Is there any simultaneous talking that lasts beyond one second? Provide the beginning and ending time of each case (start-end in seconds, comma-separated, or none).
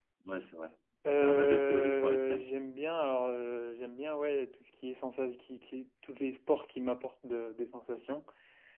1.2-2.5